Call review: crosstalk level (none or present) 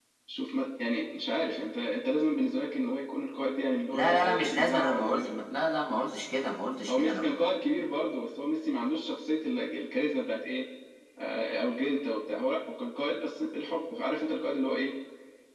present